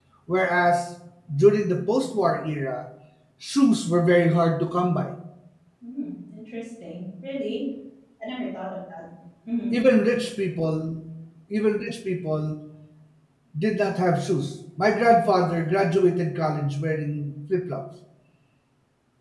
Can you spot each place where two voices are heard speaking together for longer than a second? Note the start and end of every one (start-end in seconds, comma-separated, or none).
none